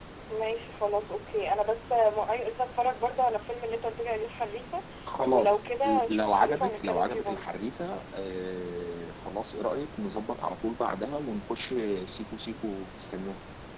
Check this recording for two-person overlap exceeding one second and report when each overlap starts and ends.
5.3-7.5

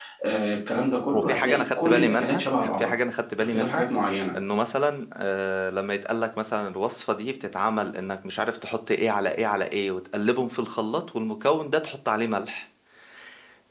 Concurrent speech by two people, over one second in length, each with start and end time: 1.1-3.0

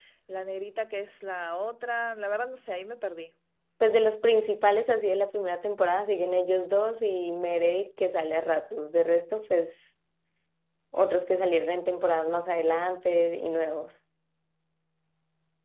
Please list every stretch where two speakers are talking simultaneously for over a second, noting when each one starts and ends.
none

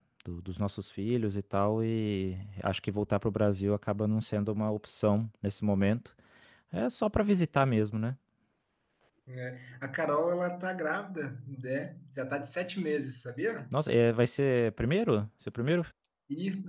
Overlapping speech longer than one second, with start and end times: none

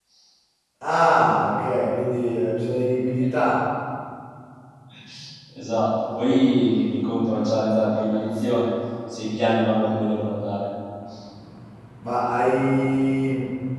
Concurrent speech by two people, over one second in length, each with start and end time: none

